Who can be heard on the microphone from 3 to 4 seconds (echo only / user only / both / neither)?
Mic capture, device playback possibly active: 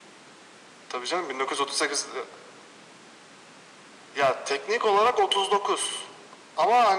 neither